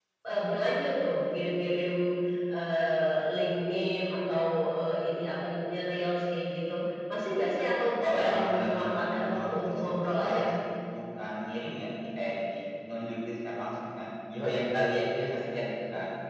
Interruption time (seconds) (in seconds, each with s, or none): 8.0 s